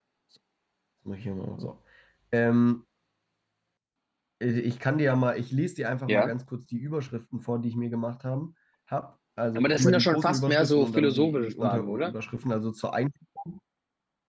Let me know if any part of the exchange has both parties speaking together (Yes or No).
Yes